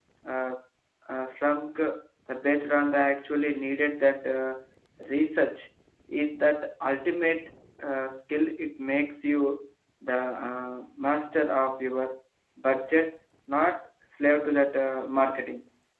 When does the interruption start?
none

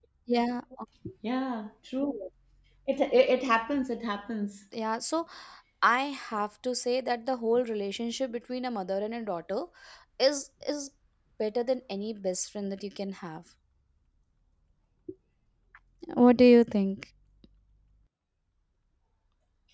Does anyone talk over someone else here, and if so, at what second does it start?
none

